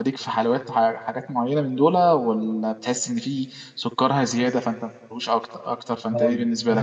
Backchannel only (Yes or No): No